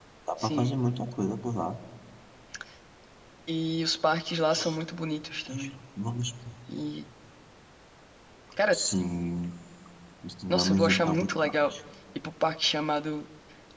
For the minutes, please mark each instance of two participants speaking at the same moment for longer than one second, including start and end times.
10.5-11.7

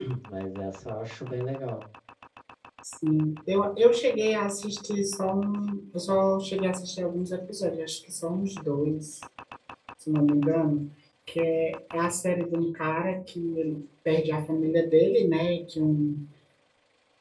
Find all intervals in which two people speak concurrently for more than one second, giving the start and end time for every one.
none

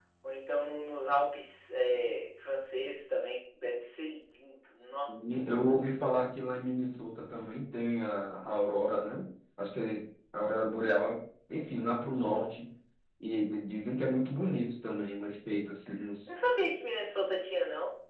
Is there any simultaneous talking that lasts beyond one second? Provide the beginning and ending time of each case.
none

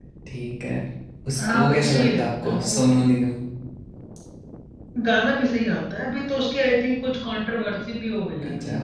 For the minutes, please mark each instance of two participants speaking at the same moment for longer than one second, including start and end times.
1.4-3.0

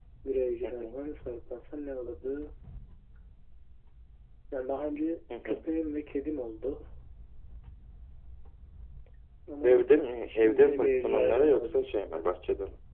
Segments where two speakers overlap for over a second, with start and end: 10.3-12.2

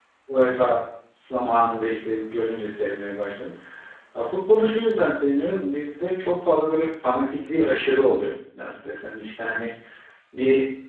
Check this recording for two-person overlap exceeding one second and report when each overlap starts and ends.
none

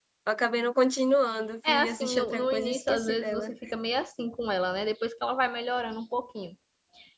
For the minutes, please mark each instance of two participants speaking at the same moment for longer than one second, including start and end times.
1.7-3.5

